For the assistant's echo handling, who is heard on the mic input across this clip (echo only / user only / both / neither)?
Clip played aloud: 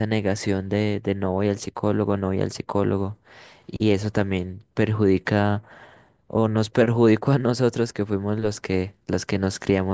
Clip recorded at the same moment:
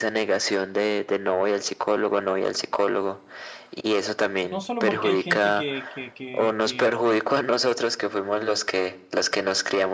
both